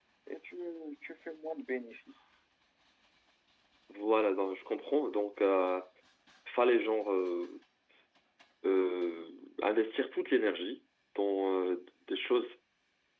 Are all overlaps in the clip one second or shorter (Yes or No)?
Yes